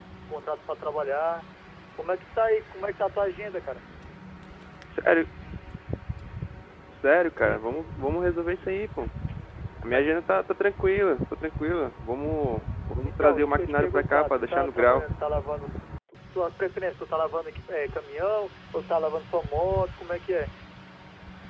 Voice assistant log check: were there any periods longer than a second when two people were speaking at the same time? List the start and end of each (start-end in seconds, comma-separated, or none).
13.0-15.0